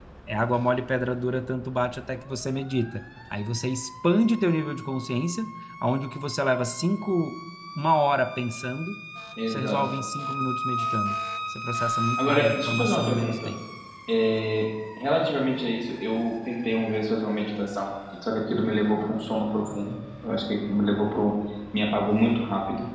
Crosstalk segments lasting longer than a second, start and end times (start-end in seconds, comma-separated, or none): 12.2-13.5